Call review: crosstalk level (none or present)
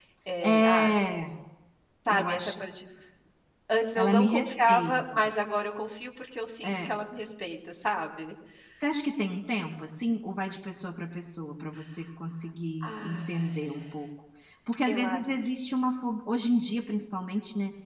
present